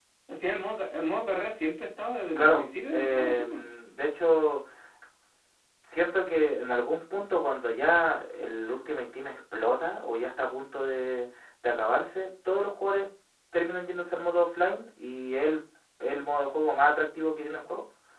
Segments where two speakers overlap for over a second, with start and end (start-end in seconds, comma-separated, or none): 2.4-3.6